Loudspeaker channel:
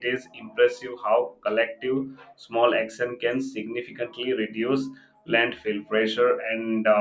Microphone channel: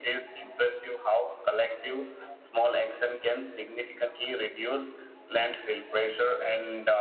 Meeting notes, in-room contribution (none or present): none